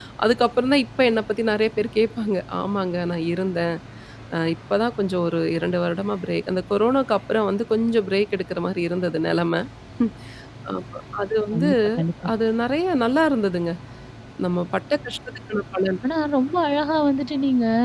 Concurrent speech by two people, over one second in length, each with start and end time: none

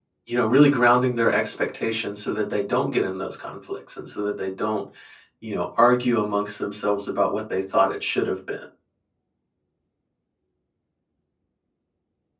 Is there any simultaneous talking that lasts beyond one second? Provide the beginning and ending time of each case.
none

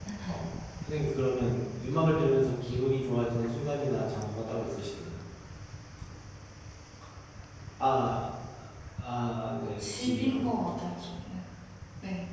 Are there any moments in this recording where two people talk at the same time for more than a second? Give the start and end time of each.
9.7-11.1

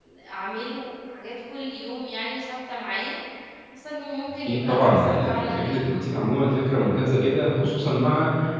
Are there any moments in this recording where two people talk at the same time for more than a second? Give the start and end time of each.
4.4-5.8

